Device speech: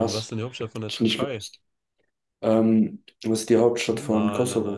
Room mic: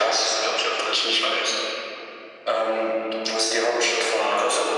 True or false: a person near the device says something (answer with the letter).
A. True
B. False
B